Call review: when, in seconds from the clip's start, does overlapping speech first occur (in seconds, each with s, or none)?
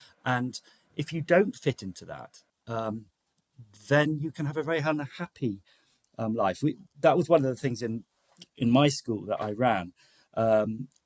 none